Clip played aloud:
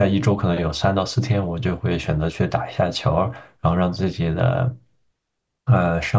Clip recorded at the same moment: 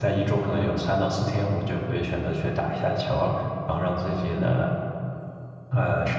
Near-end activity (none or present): none